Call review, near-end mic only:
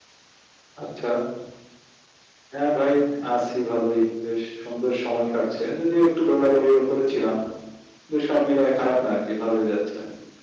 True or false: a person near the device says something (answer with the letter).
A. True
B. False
B